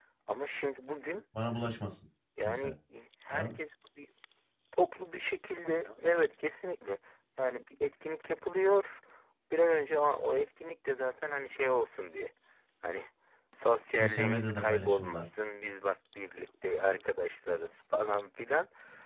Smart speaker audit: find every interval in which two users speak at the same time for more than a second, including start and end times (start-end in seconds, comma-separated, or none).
13.9-15.2